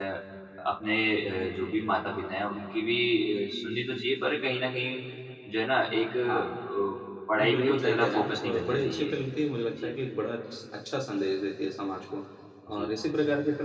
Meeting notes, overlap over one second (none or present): present